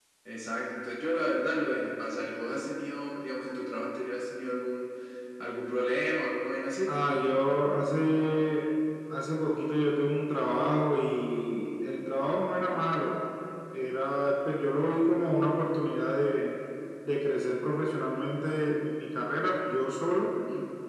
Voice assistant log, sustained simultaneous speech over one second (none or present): none